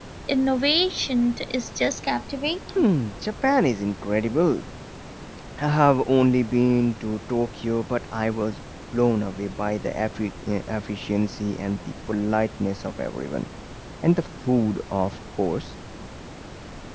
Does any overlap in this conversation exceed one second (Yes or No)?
No